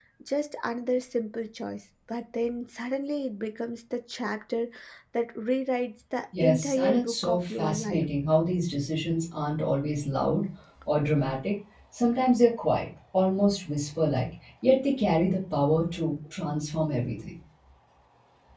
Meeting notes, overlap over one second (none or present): present